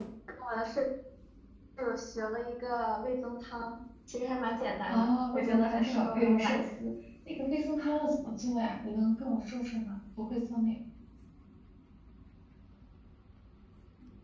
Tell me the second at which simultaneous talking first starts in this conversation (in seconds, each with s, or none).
4.9 s